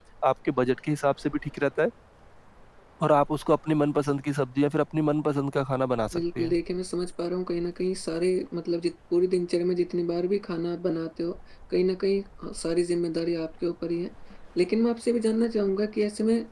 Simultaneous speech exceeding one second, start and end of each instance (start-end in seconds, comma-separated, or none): none